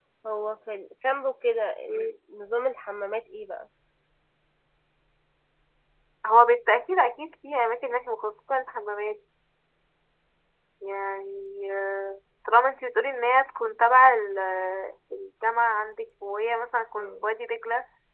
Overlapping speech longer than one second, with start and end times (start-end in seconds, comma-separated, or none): none